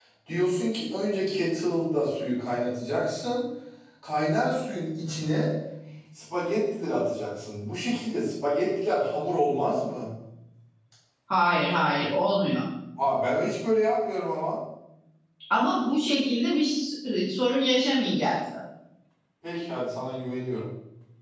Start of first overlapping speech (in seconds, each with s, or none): none